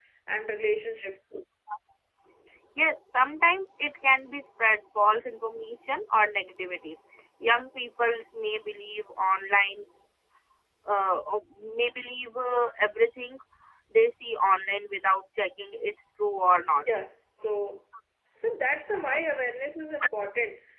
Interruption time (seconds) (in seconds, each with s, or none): none